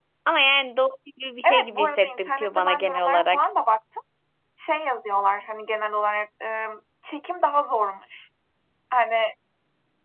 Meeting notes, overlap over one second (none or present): present